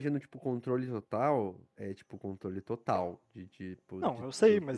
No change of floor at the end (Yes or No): No